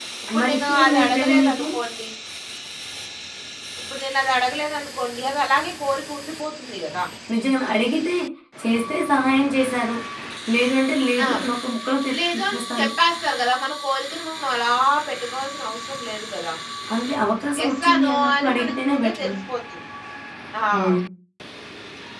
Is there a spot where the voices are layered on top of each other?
Yes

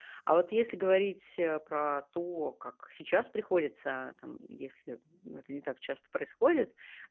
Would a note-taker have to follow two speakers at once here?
No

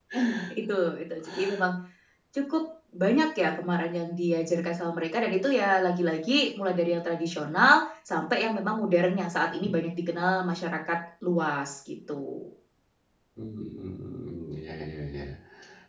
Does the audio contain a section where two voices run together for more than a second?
No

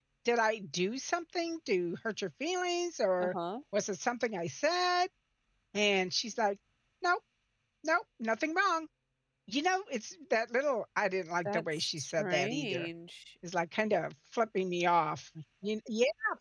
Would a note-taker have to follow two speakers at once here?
Yes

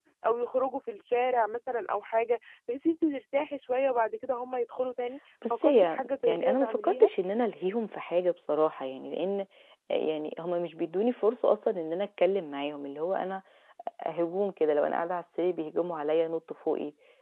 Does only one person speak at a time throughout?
No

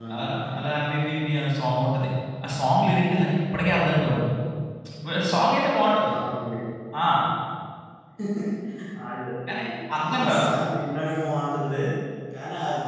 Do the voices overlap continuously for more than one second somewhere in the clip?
No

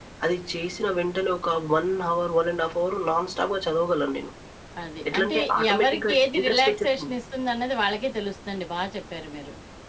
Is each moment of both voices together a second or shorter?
No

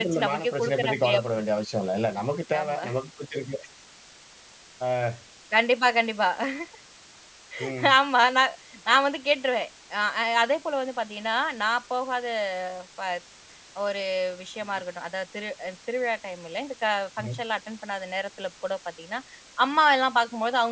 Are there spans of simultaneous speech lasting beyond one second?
Yes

